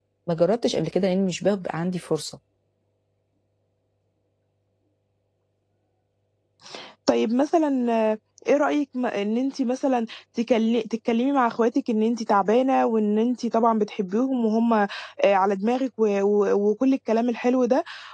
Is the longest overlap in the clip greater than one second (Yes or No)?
No